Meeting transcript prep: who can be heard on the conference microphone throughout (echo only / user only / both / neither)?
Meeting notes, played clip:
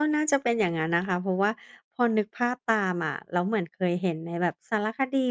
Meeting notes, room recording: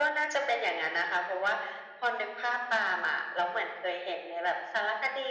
echo only